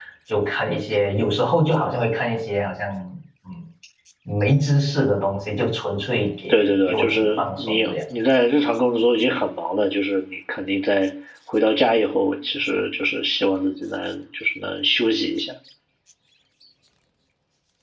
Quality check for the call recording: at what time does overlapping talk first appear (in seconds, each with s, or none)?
6.5 s